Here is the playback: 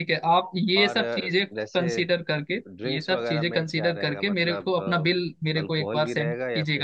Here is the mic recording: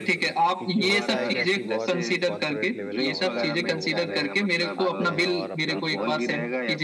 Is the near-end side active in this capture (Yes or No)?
Yes